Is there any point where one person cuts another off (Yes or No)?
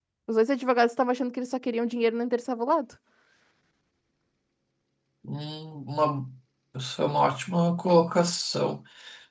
No